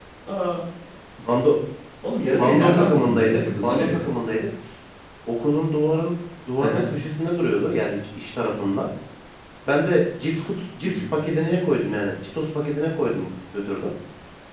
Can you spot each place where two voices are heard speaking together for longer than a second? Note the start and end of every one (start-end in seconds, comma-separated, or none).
2.3-4.1